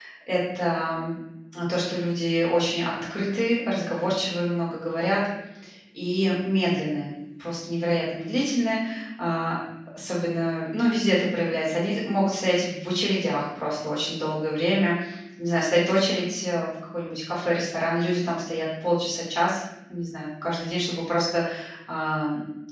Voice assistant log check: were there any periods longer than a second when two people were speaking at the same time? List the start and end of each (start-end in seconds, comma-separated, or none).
none